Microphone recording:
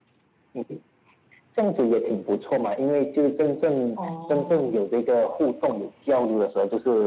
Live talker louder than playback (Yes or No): No